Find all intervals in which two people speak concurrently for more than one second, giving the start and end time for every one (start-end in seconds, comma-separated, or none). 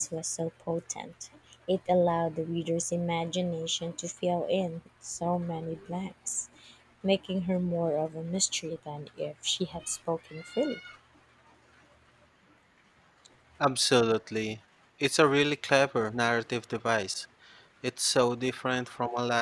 none